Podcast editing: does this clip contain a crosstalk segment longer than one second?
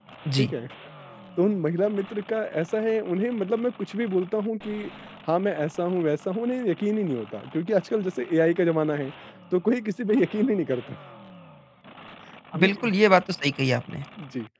No

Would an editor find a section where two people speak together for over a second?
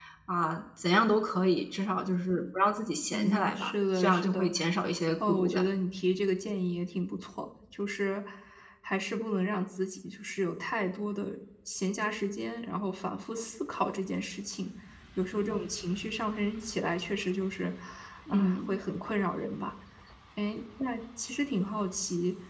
Yes, from 3.1 s

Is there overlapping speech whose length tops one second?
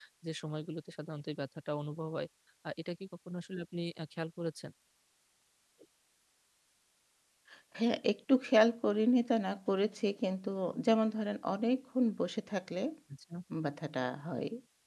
No

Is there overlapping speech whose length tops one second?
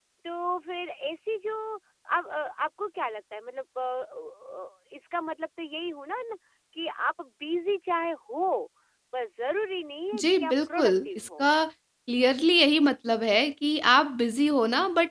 Yes, from 10.1 s

